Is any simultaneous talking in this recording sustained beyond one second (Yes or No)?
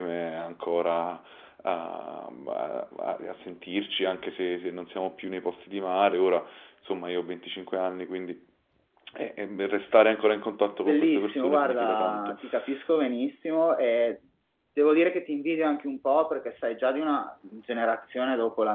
Yes